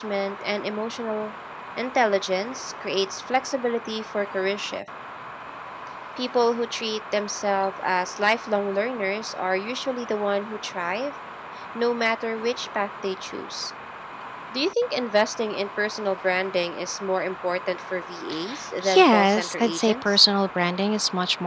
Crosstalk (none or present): present